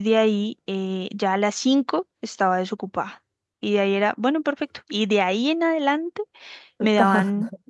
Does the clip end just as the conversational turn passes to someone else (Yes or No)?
No